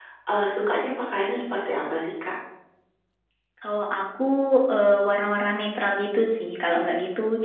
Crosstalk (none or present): none